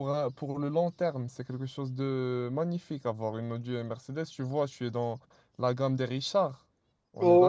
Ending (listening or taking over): taking over